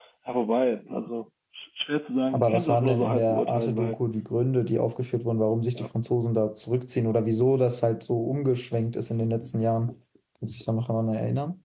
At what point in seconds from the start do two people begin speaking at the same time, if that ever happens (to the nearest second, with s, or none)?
2 s